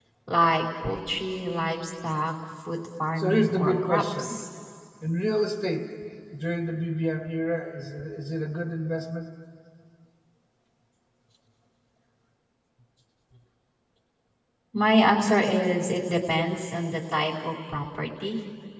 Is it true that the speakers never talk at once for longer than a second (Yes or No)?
No